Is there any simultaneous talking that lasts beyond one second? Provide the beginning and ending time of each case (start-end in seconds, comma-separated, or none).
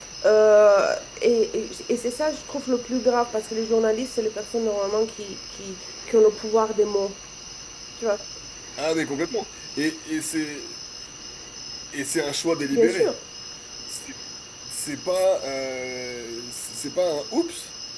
none